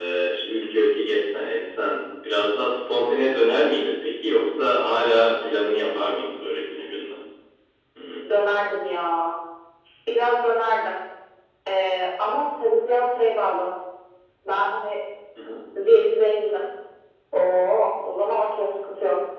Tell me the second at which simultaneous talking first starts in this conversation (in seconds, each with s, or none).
none